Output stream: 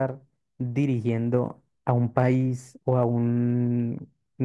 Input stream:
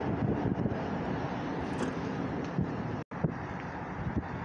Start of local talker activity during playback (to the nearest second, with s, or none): none